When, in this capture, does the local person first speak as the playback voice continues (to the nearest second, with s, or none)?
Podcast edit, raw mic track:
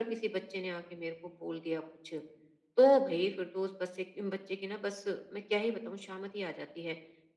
none